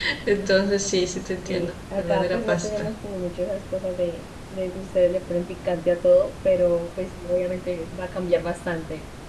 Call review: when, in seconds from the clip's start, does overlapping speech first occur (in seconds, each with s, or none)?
1.5 s